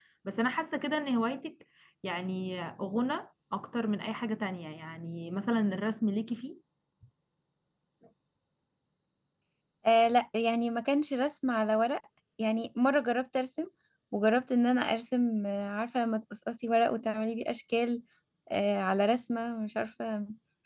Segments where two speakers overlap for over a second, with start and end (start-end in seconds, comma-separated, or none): none